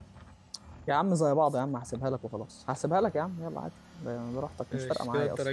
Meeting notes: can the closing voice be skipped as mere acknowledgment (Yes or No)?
No